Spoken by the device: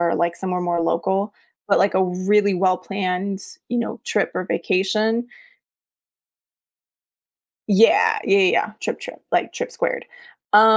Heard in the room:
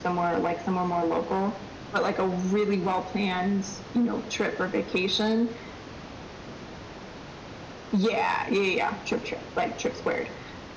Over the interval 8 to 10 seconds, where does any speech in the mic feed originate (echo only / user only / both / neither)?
echo only